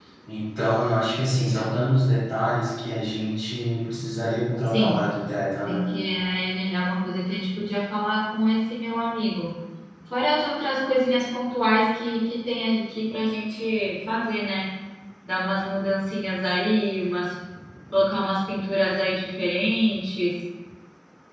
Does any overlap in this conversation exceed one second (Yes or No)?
No